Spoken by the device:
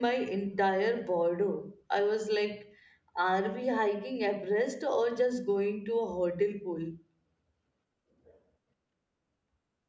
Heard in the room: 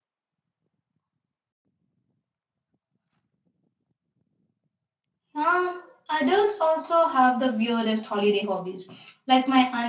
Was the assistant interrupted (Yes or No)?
Yes